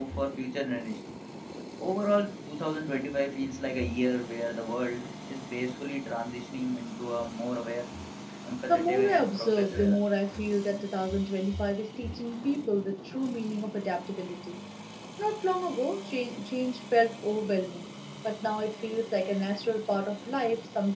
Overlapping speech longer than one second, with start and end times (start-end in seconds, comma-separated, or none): 8.7-10.0